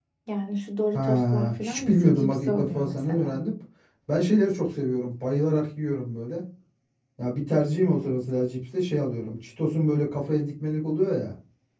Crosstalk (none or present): present